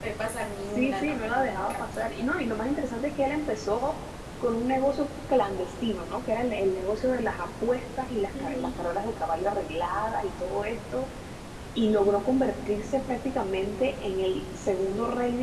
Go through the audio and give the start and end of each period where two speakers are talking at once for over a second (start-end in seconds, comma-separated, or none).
0.8-2.0